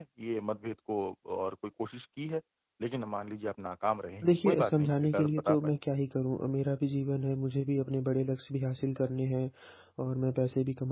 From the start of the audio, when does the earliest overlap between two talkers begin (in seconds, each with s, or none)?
4.2 s